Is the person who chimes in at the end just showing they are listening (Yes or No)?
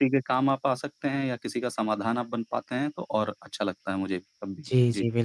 No